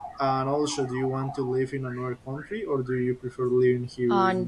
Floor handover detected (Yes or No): Yes